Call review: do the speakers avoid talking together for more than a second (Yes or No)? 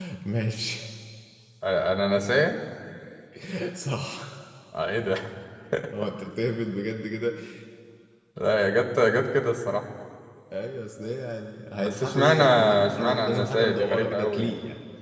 No